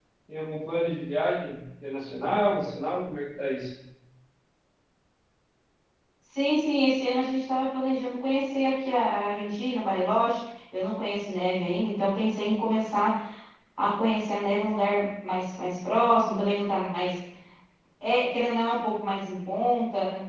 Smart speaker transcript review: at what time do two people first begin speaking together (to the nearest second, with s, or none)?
none